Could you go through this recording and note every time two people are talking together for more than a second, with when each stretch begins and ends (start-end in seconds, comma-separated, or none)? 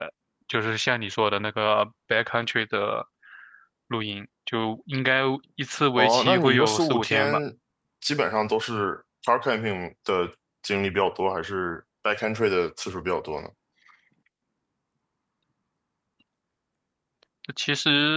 6.0-7.4